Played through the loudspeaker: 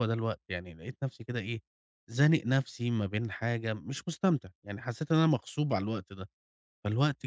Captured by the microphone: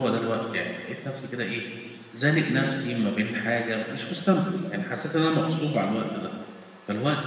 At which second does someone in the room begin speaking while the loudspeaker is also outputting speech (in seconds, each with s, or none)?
none